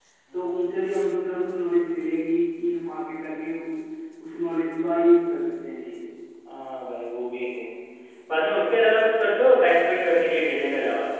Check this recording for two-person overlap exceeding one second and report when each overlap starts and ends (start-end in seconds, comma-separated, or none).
none